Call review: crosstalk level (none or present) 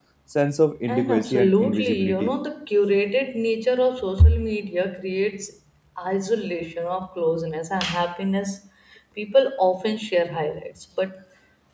present